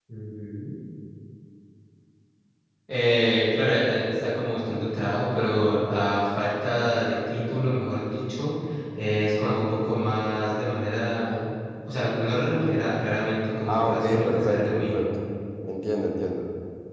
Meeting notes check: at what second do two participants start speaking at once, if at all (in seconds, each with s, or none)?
13.7 s